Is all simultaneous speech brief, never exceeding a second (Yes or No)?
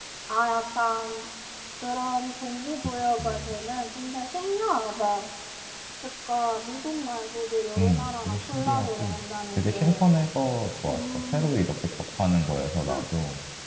No